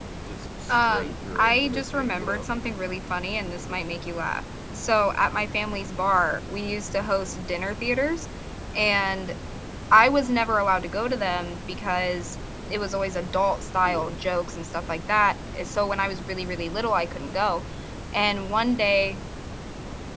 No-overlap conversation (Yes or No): No